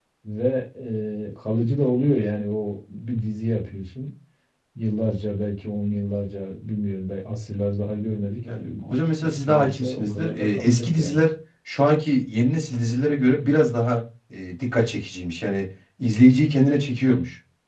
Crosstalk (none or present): present